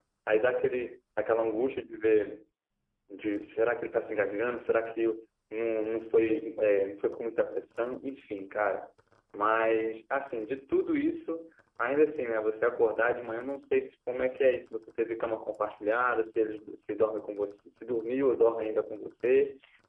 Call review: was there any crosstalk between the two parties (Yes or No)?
No